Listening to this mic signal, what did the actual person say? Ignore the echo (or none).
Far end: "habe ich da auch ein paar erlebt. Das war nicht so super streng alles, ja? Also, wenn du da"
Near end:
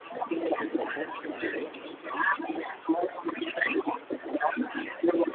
auch interessant, weil,